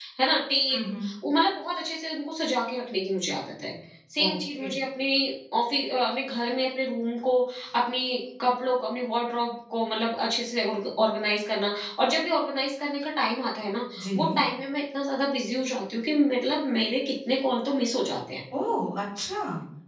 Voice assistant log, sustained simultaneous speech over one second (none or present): none